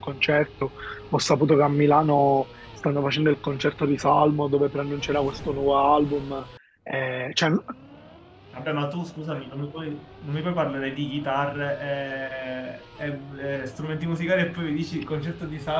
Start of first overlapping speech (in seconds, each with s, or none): none